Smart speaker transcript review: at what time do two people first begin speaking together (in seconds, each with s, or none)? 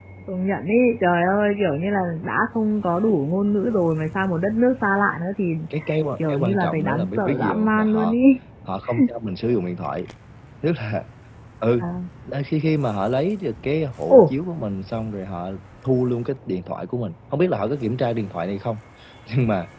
6.3 s